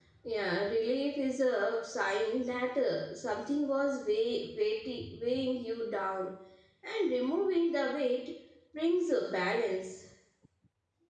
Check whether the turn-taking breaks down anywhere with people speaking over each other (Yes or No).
No